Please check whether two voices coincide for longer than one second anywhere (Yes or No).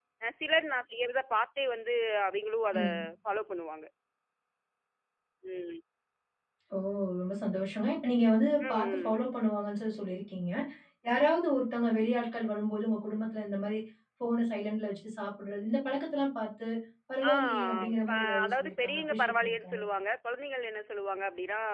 Yes